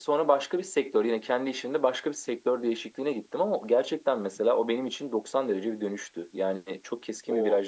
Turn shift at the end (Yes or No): No